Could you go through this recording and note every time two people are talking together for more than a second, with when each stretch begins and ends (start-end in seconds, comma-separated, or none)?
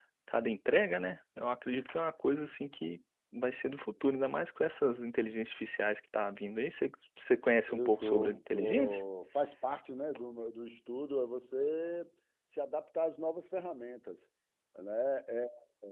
7.7-9.0